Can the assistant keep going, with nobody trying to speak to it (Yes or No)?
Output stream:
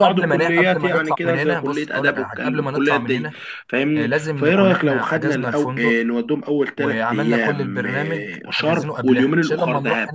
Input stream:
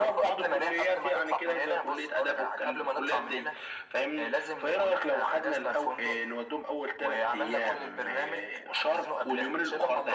Yes